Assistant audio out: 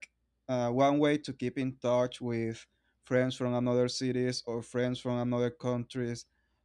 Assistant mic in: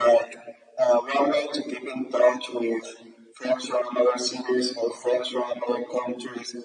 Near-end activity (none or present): none